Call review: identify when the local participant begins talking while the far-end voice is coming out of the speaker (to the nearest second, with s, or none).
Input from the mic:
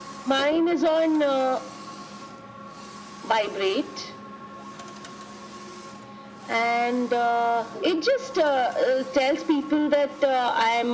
none